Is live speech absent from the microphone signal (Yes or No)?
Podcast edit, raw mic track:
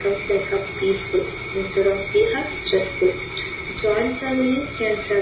Yes